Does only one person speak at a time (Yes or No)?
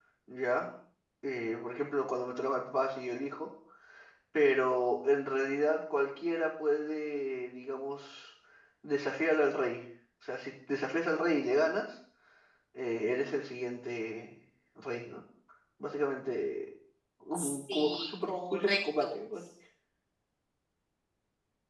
No